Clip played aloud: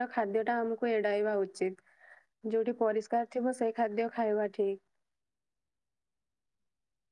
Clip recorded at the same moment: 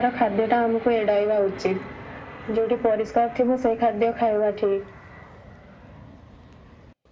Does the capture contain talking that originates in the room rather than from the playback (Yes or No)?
No